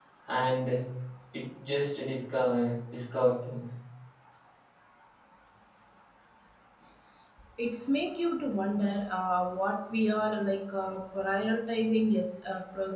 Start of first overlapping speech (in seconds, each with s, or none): none